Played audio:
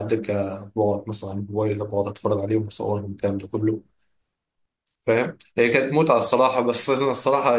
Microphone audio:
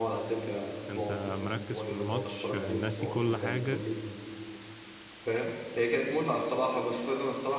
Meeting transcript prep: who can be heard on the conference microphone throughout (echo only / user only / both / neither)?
both